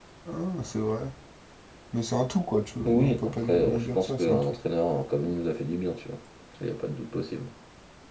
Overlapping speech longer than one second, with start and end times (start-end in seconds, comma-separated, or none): 2.9-4.4